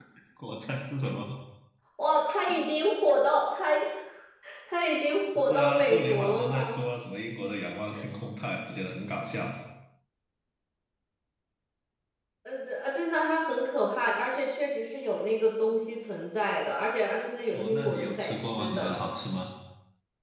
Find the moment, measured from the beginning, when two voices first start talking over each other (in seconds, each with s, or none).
5.3 s